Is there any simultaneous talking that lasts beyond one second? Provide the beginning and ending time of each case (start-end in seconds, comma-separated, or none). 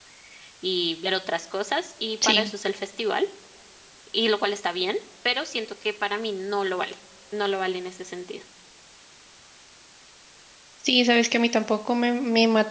none